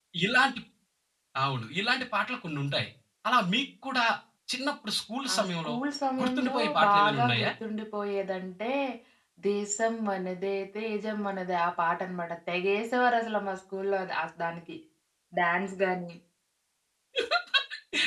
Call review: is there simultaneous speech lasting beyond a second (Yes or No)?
Yes